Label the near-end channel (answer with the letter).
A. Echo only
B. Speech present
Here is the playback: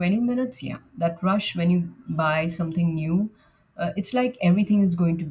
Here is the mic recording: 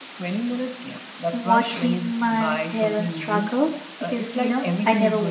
B